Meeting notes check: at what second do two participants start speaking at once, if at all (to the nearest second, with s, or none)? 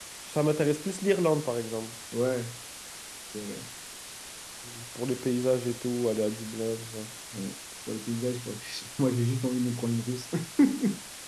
none